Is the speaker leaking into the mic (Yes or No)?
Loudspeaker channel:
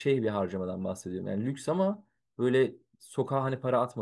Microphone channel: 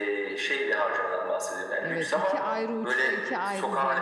Yes